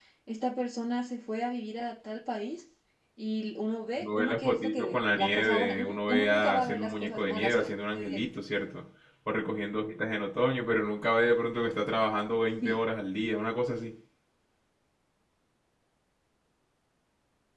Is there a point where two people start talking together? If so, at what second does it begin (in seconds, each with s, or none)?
3.9 s